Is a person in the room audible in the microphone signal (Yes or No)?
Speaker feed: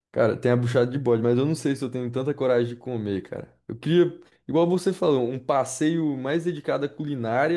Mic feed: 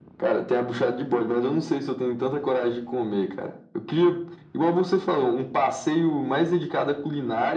No